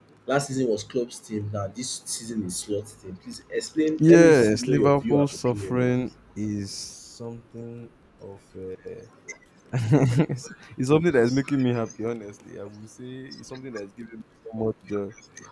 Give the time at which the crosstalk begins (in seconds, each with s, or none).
4.0 s